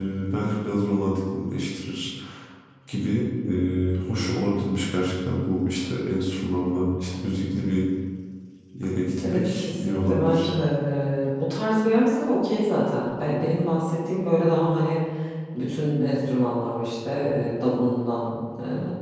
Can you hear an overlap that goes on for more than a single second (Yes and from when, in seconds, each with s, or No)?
Yes, from 9.3 s